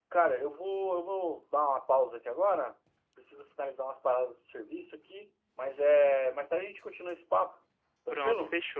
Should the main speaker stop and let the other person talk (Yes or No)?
Yes